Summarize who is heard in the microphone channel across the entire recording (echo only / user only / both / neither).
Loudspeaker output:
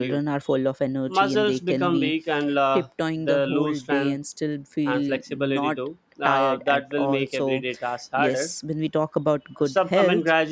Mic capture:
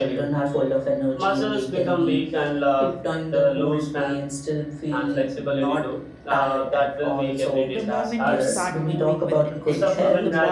both